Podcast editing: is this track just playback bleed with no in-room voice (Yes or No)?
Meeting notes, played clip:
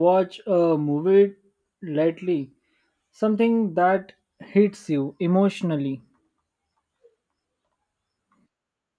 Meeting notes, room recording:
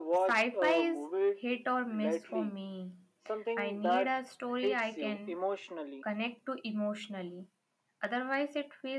No